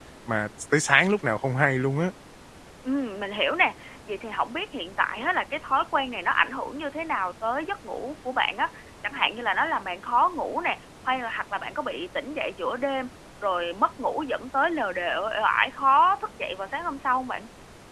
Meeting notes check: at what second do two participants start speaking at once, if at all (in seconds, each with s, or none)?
none